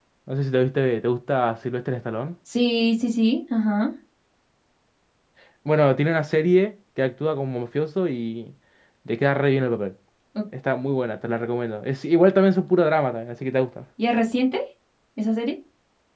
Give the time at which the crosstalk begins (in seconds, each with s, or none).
none